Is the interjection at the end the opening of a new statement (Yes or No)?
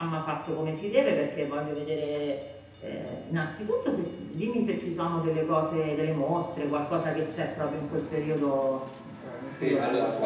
Yes